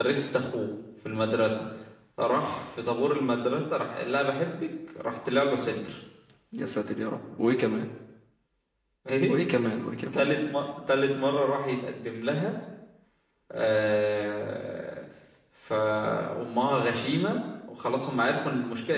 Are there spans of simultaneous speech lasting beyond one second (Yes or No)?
No